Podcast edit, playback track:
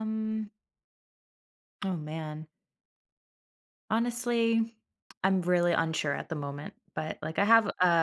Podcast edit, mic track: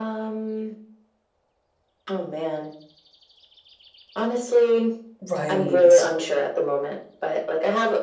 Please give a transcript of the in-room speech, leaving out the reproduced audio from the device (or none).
Right.